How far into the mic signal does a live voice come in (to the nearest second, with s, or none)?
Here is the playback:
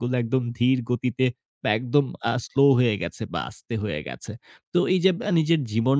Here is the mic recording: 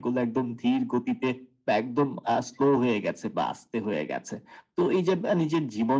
none